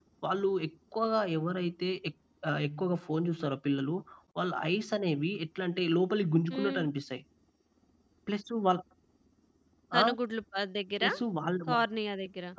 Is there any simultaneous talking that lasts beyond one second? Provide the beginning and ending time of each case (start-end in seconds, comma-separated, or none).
none